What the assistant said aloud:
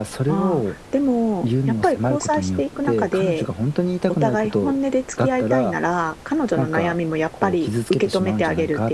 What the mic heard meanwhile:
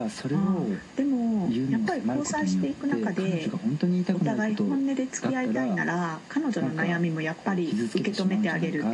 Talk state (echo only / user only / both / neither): echo only